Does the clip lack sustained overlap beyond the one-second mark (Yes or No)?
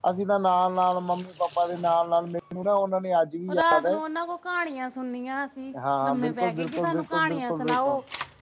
No